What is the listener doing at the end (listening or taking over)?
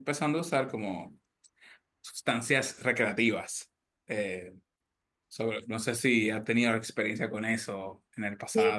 taking over